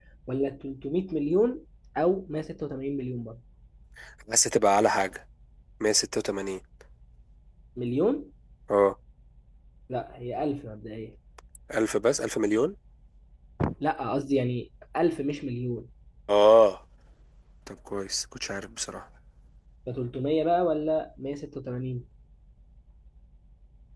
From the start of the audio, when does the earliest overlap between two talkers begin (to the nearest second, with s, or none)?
none